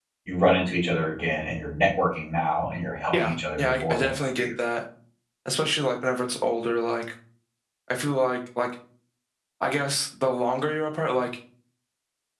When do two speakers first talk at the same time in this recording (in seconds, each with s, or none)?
3.1 s